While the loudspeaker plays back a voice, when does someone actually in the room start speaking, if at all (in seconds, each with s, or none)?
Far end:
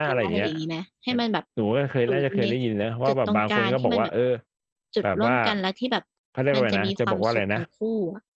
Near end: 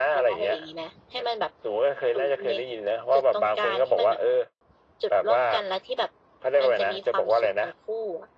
none